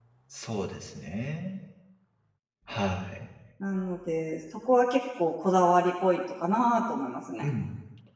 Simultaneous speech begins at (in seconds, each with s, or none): none